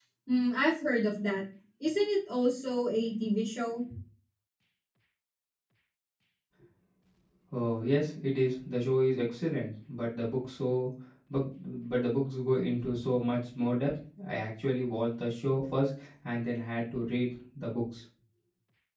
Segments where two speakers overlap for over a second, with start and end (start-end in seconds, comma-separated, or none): none